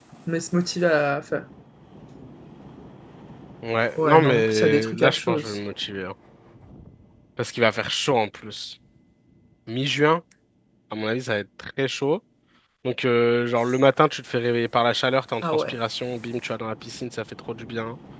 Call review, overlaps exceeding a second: present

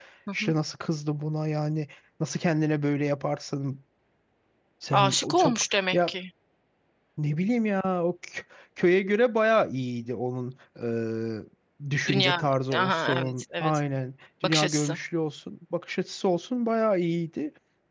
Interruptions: present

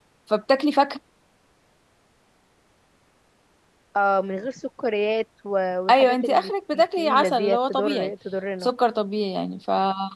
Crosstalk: present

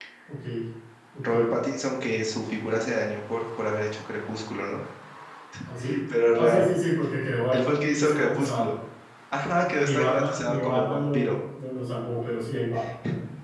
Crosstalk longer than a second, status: present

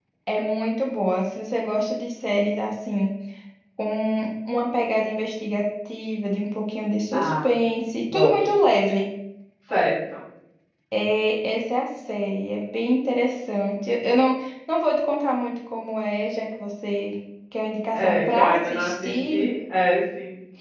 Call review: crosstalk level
present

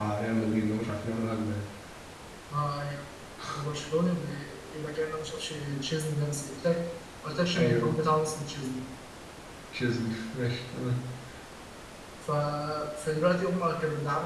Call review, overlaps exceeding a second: none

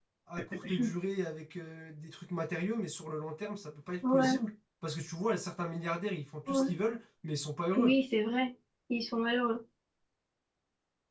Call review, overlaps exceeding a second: none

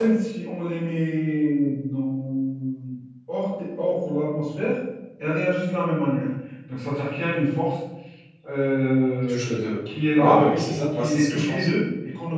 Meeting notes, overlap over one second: present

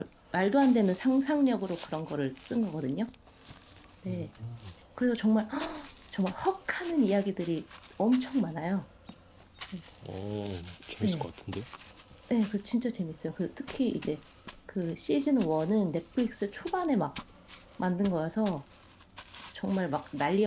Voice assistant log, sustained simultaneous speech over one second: none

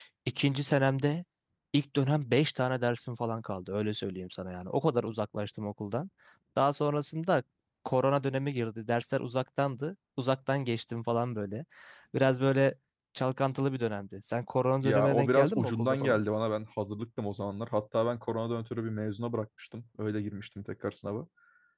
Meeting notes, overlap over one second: present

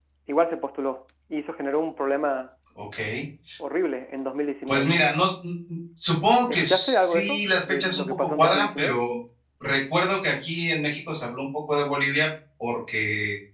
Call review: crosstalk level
present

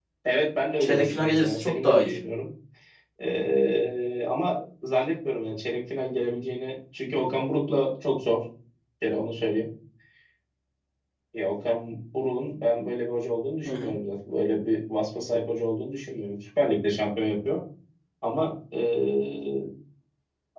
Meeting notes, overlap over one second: present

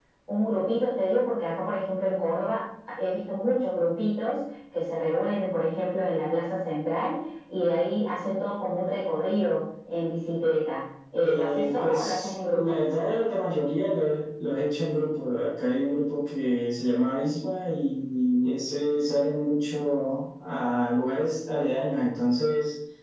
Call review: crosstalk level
present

